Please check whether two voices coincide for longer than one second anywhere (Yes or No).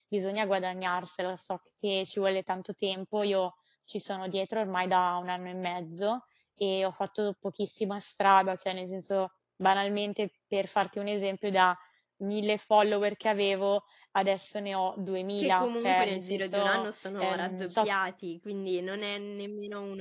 Yes